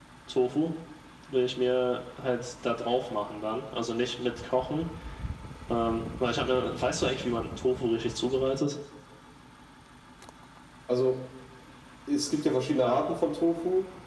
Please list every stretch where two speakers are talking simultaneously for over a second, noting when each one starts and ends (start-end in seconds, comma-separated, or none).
none